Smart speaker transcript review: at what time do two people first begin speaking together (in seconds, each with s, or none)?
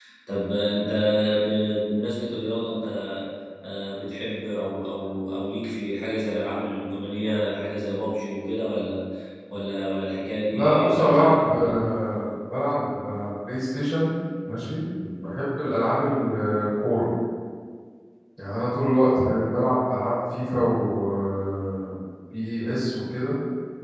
10.5 s